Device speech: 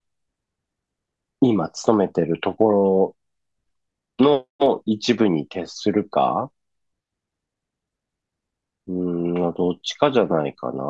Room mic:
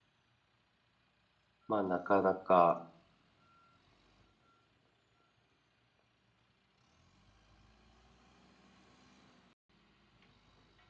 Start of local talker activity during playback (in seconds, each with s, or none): 1.7 s